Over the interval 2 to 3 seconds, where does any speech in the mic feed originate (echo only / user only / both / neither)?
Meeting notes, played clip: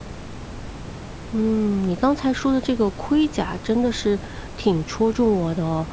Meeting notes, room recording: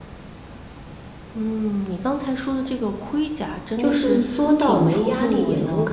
echo only